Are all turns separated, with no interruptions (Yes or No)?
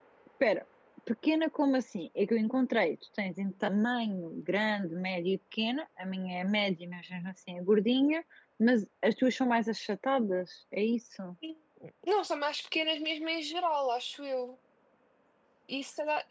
Yes